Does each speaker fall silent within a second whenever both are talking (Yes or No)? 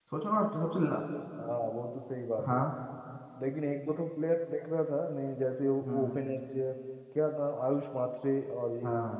Yes